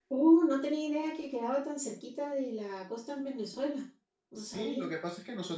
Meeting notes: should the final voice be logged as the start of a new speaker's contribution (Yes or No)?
Yes